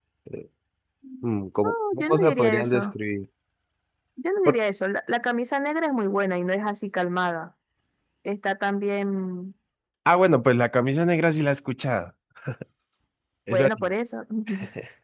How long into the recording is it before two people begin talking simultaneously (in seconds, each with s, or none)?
1.6 s